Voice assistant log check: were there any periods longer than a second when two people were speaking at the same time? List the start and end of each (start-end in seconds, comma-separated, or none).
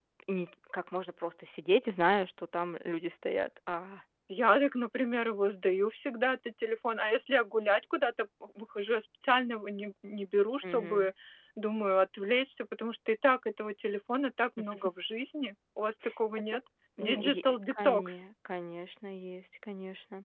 17.0-18.2